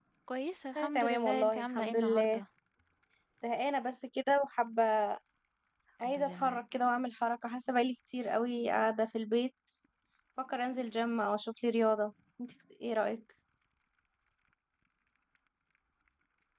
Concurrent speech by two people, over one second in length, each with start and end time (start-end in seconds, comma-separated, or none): 0.8-2.4